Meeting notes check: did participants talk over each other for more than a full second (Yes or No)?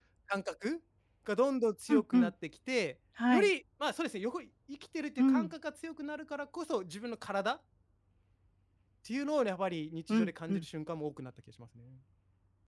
No